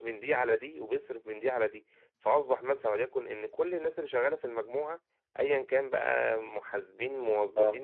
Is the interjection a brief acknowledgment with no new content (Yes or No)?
Yes